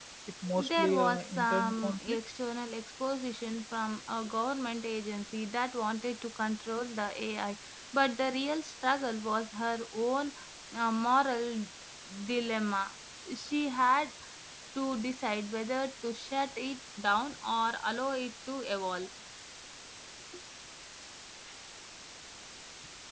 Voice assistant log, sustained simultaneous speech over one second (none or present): present